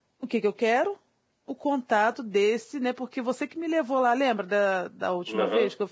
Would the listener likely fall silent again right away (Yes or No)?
No